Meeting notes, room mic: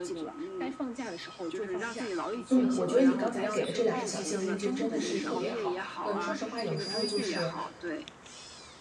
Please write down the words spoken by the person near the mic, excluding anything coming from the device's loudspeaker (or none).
嗯，我觉得你刚才给的这两个小建议就真的是特别好。嗯，说实话，有时候就是